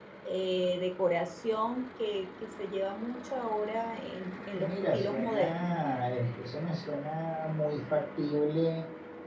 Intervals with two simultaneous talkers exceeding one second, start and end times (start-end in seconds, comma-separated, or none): 4.5-5.8